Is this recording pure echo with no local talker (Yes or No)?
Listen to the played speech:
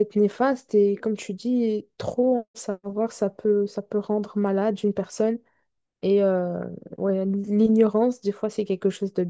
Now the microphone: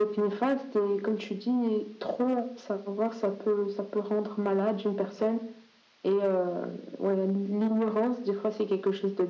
Yes